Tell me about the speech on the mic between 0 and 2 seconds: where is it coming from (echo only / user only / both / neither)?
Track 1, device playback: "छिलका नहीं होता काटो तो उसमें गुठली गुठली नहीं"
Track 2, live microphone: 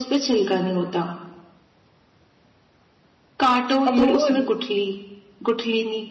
echo only